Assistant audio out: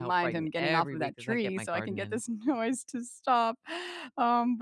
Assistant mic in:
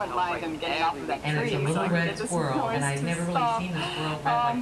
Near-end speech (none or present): present